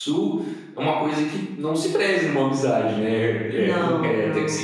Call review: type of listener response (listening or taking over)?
listening